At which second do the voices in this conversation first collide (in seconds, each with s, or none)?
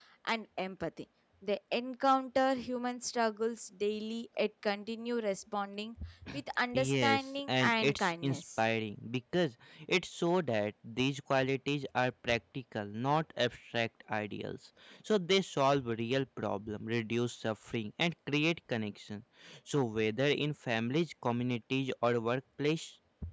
6.7 s